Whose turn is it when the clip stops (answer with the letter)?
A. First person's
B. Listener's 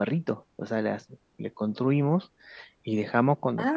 A